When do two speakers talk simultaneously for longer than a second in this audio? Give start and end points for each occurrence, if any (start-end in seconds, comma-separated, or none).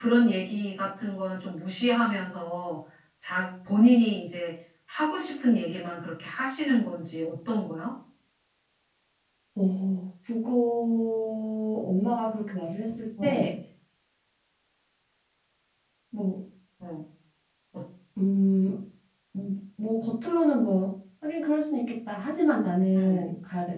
none